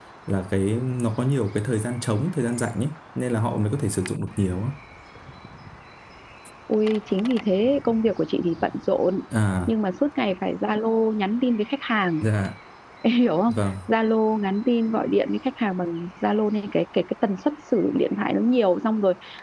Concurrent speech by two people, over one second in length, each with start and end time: none

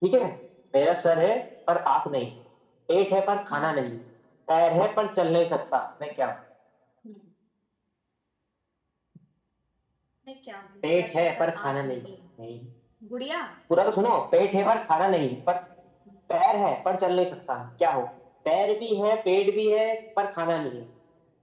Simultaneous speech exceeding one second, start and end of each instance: 10.8-12.0

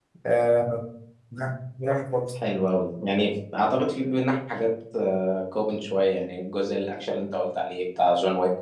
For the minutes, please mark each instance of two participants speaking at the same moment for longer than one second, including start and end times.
none

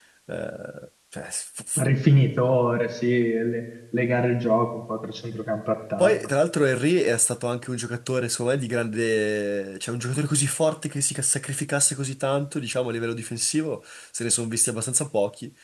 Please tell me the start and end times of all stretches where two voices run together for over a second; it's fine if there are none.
none

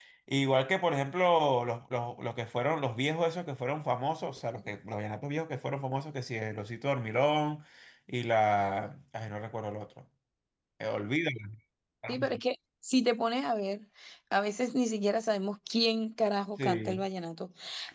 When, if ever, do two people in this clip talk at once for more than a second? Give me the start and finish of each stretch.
none

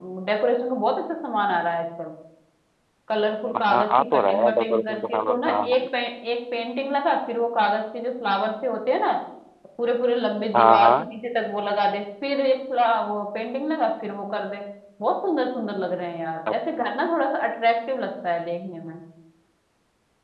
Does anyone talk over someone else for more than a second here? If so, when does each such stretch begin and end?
3.7-5.8

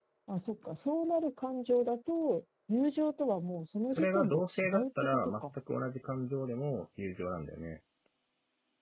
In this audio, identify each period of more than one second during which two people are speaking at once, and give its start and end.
4.0-5.4

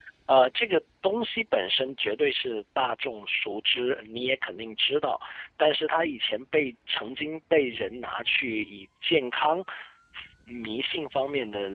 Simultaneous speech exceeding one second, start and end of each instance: none

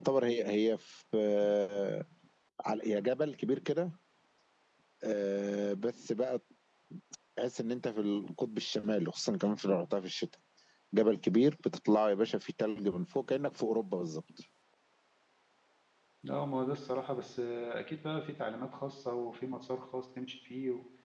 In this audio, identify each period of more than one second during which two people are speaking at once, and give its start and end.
none

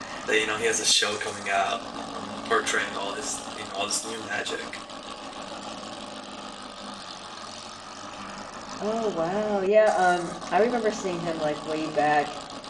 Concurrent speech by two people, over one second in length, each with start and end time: none

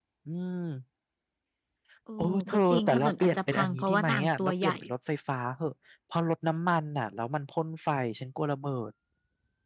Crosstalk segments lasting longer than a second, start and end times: 2.2-4.8

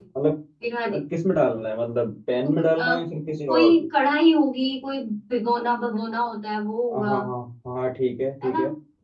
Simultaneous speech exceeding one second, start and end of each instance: none

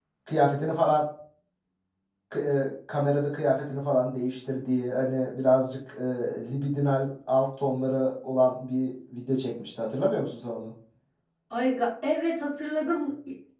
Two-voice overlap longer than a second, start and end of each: none

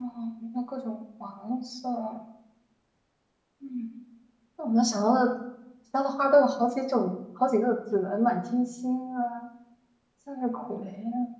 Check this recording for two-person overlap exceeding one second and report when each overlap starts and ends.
none

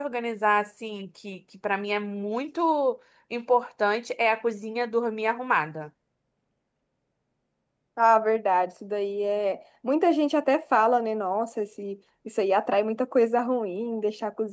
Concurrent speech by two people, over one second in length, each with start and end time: none

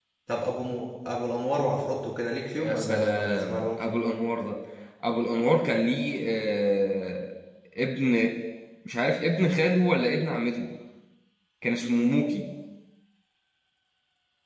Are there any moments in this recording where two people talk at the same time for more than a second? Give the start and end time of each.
2.6-3.8

